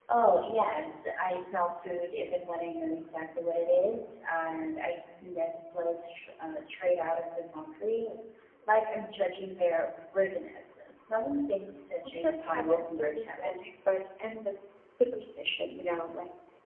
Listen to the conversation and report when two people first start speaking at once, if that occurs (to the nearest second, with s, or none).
12 s